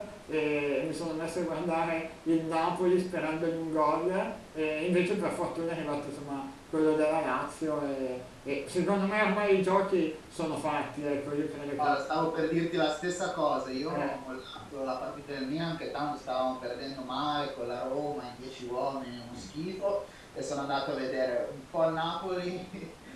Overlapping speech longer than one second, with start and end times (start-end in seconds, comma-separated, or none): none